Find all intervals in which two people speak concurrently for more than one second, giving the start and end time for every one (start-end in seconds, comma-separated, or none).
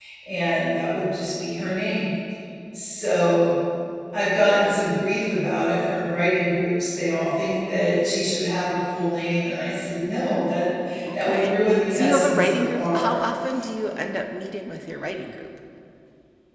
11.1-13.2